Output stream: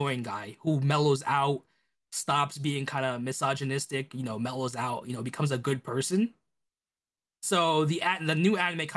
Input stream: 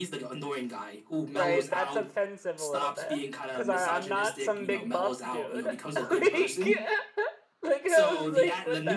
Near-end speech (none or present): present